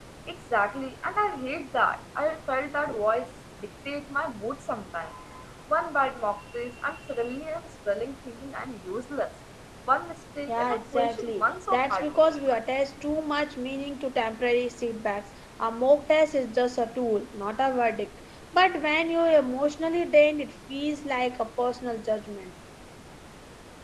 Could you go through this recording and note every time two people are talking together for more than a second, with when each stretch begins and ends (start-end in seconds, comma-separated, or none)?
10.5-12.6